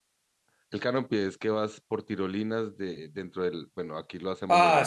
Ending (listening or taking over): taking over